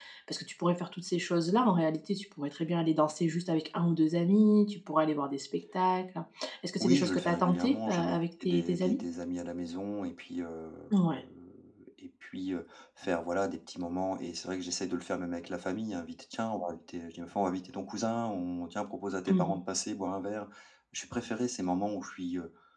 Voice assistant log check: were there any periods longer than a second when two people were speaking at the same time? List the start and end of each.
6.8-9.0

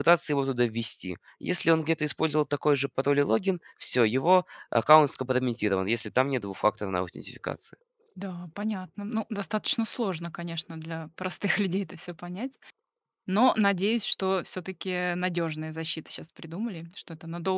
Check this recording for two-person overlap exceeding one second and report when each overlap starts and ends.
none

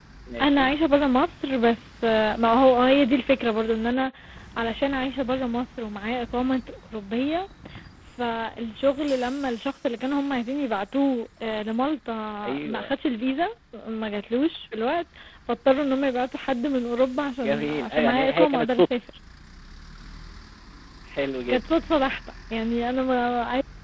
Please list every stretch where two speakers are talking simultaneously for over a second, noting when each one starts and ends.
17.4-18.9

